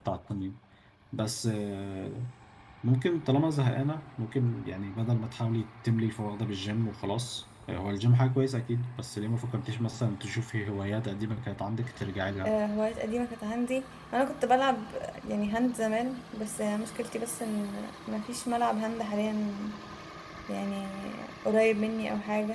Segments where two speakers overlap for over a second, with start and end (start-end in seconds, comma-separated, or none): none